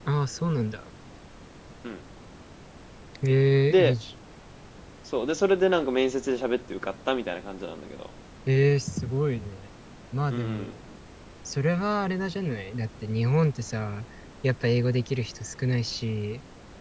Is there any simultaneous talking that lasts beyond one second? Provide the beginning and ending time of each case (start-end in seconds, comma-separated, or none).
none